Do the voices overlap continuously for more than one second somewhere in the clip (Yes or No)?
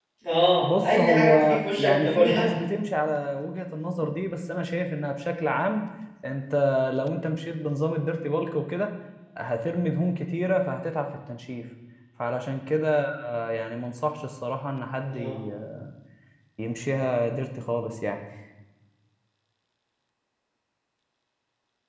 Yes